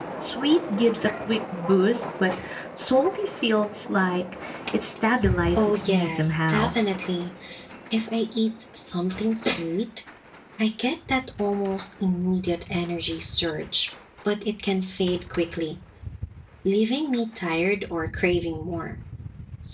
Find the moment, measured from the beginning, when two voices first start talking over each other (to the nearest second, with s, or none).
6 s